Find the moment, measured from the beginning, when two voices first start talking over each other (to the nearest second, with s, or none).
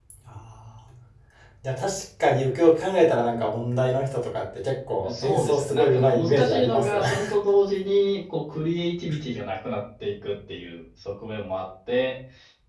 5 s